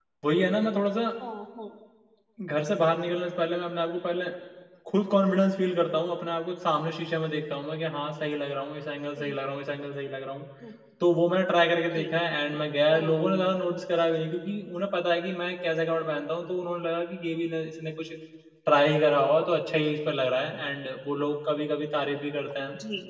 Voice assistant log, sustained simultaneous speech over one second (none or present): none